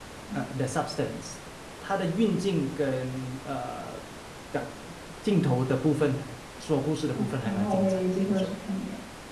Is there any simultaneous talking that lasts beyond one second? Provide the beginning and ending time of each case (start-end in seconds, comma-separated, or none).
7.1-8.5